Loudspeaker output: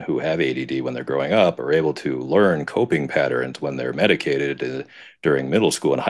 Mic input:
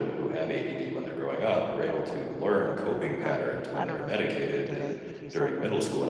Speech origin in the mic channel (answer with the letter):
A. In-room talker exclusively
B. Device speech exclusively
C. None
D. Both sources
D